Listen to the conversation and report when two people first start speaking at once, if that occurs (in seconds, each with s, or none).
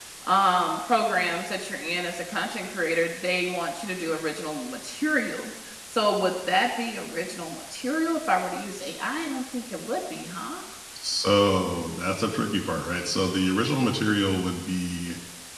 none